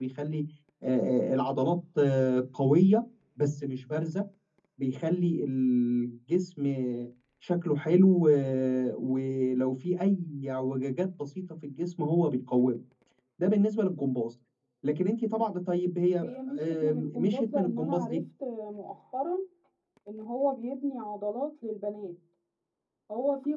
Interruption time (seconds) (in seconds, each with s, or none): 16.2 s